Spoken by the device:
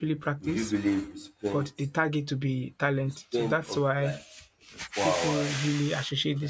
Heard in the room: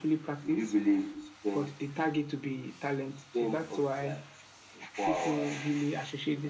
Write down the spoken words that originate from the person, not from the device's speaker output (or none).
none